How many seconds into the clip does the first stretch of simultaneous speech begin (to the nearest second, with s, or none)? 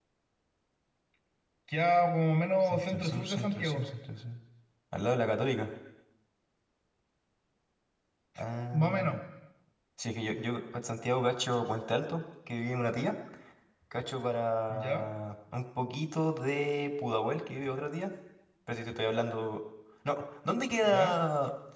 3 s